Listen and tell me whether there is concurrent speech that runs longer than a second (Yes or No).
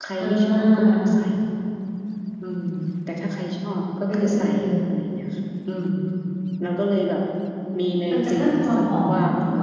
Yes